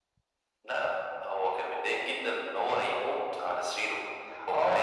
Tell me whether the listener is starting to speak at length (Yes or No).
Yes